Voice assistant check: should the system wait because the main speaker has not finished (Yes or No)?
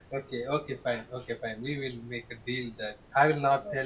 Yes